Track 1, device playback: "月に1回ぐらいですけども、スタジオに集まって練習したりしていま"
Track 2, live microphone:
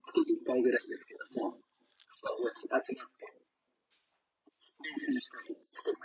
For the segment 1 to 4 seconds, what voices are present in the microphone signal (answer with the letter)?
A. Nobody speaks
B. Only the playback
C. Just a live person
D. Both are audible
B